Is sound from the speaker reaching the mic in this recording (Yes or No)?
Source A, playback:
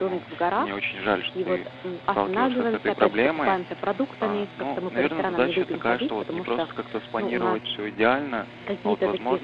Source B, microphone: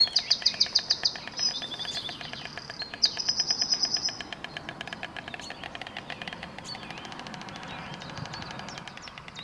No